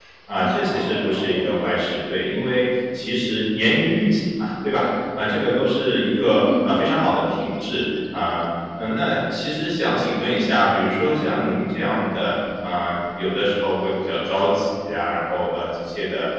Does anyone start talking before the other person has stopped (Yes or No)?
Yes